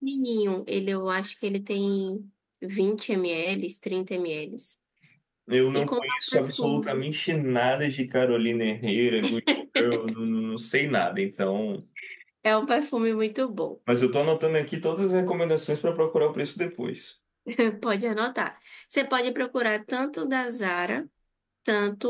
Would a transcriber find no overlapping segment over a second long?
No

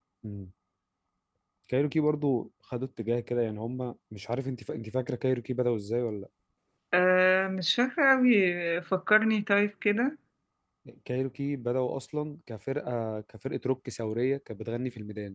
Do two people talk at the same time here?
No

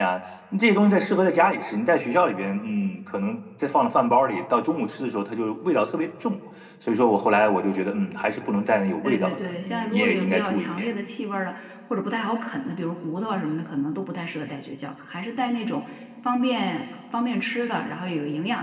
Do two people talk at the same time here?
Yes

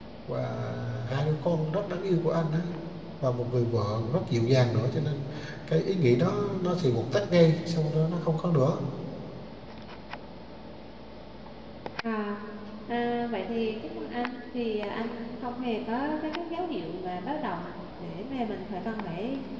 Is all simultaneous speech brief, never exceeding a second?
Yes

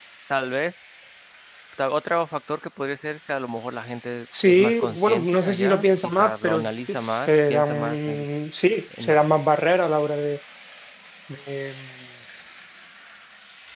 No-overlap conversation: No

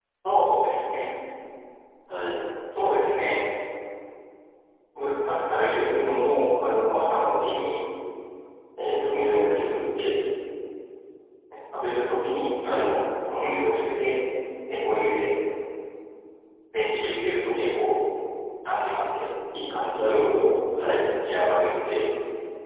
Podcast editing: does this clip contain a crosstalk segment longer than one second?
No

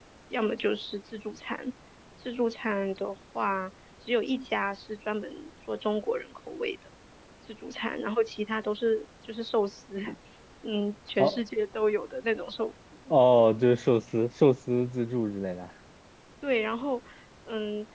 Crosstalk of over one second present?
No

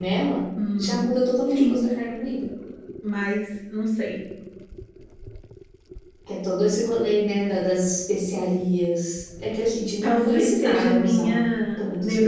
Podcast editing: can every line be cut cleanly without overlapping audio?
No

